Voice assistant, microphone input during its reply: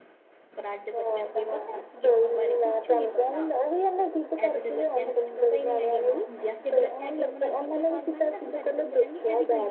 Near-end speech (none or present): present